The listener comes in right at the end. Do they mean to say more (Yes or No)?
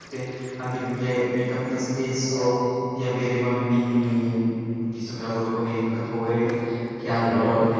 No